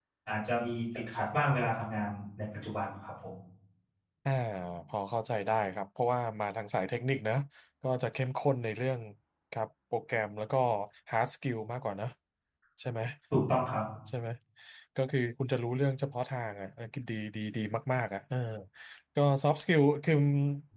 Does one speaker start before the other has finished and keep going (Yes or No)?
No